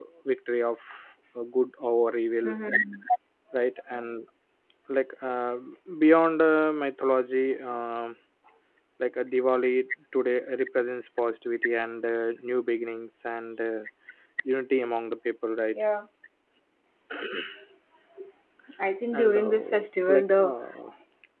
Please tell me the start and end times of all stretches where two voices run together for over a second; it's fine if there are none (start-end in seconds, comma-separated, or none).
19.1-20.5